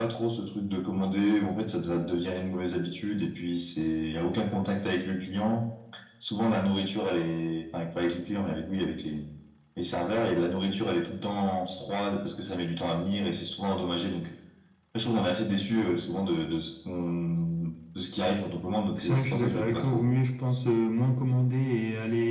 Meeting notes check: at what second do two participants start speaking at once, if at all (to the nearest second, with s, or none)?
19 s